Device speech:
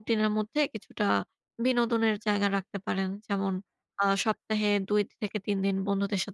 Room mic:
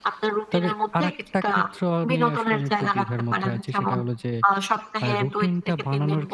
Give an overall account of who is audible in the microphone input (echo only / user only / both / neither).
both